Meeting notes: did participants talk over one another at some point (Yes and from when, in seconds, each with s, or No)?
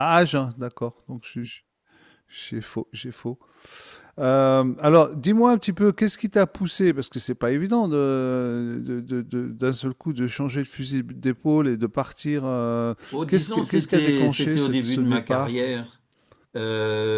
Yes, from 13.1 s